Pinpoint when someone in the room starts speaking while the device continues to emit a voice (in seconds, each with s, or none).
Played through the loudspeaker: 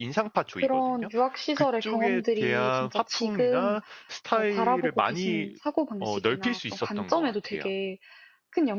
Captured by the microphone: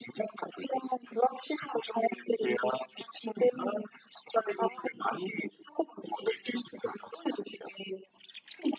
none